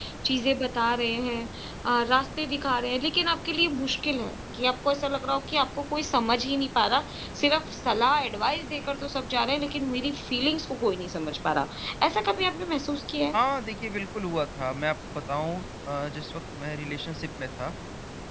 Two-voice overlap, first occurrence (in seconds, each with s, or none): none